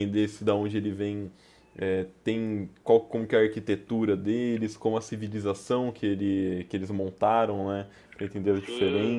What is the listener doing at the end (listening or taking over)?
taking over